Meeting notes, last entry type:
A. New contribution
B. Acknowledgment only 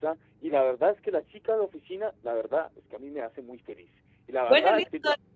A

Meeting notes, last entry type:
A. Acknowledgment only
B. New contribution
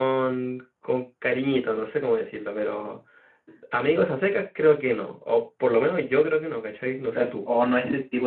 B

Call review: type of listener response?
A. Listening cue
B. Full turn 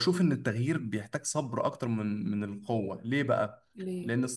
A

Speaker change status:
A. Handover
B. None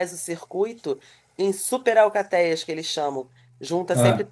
B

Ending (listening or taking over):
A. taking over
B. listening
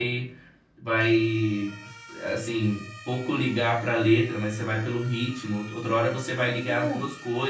B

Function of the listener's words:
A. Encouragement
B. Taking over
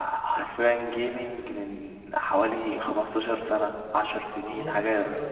B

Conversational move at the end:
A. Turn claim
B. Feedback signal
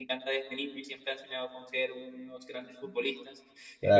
B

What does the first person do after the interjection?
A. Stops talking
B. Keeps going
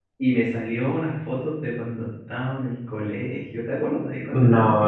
A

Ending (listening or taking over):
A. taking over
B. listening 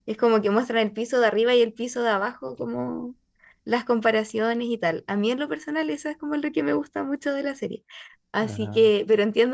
B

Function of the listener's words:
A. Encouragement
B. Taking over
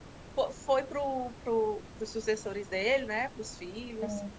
A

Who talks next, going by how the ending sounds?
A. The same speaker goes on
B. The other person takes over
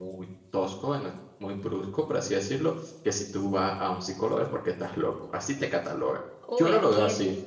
B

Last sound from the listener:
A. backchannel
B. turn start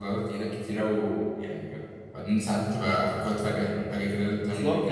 B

